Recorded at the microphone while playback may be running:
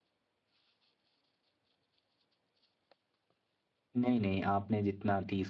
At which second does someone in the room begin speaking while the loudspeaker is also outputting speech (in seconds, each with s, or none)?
4.0 s